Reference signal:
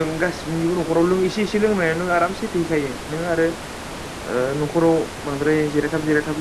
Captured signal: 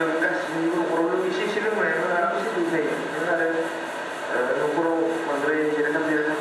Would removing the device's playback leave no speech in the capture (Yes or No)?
No